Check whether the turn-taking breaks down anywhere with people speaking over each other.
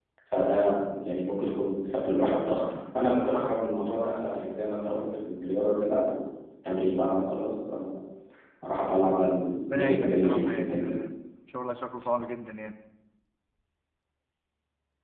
Yes, from 9.7 s

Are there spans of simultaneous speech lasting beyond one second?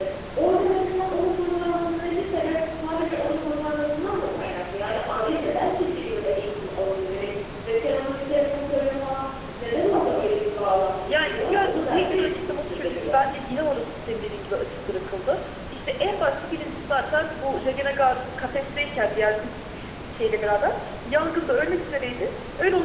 Yes, from 11.1 s

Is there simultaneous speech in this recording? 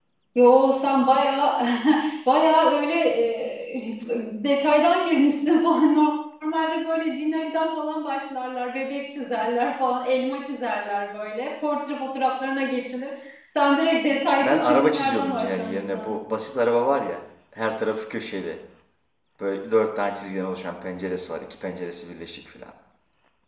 Yes, from 14.3 s

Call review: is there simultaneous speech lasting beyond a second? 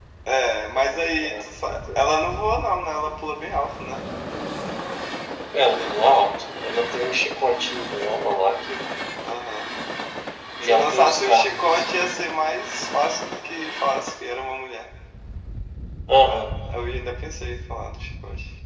Yes, from 0.8 s

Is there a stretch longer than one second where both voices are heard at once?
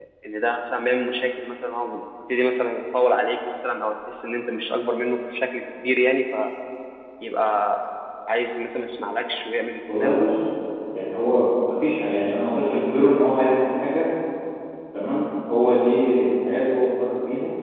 No

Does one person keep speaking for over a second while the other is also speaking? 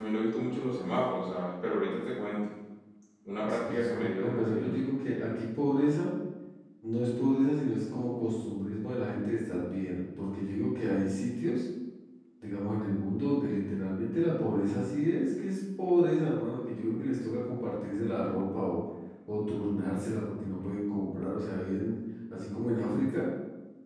Yes, from 3.4 s

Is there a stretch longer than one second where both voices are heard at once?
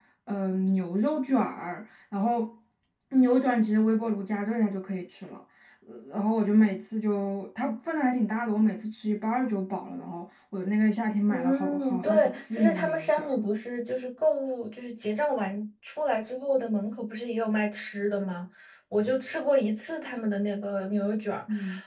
Yes, from 11.3 s

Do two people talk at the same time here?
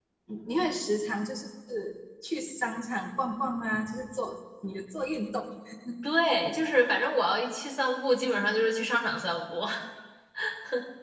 No

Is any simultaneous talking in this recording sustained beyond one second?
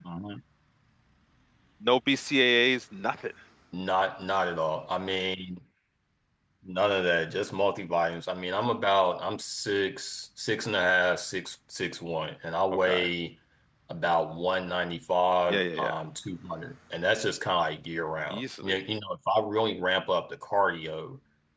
No

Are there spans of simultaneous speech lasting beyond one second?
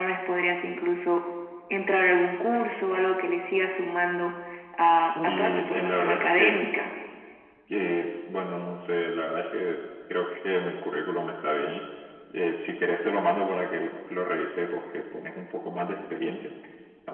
Yes, from 4.9 s

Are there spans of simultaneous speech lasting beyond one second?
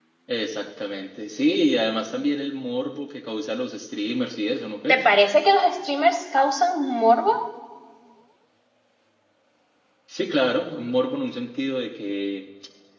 No

